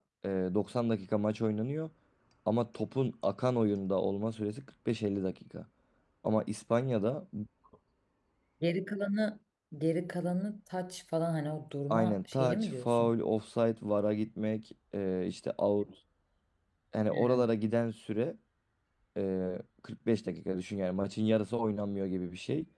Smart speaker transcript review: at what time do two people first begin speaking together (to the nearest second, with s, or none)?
12 s